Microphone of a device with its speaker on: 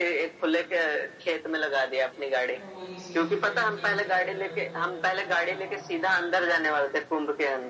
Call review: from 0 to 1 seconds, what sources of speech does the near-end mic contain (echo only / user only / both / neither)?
echo only